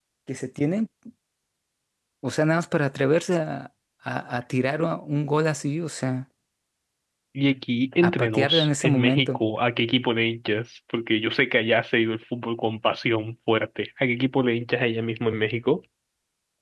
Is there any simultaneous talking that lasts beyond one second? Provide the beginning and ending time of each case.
8.0-9.4

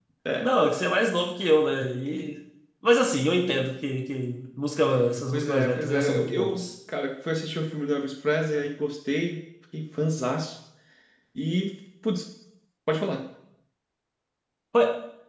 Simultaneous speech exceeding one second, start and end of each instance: 5.3-6.7

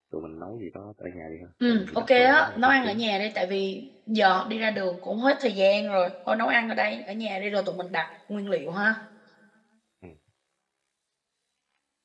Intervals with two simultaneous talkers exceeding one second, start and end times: 1.7-3.0

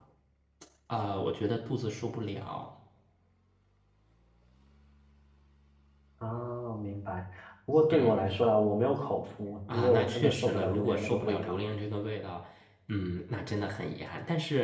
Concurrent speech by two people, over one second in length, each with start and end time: 9.7-11.6

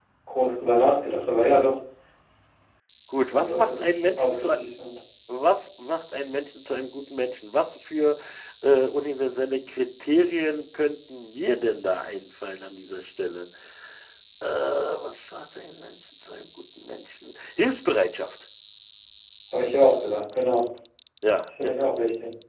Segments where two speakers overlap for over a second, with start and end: 3.3-4.5

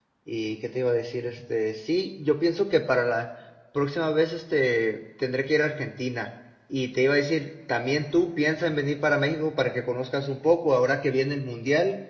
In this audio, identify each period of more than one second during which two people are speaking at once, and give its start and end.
none

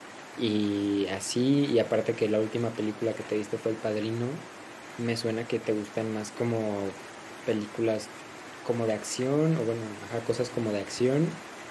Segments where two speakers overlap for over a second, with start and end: none

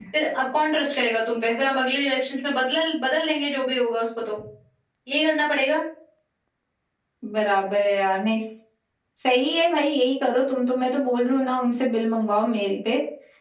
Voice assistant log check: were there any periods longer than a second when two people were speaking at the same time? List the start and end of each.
none

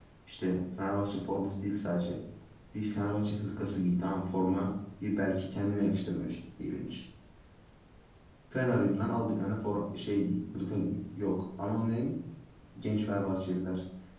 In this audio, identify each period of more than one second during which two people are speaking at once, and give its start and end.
none

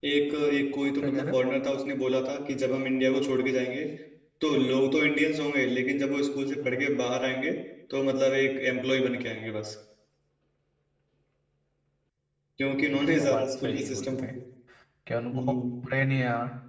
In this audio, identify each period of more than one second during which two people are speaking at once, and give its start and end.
12.7-14.2

